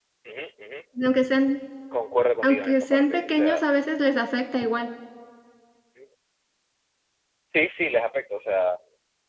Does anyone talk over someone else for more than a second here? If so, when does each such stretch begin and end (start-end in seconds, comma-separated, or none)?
2.4-3.6